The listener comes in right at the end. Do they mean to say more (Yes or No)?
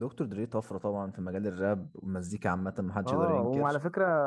Yes